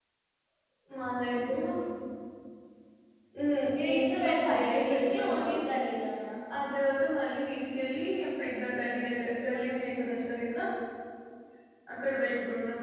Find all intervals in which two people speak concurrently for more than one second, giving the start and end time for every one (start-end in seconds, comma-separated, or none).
3.9-5.5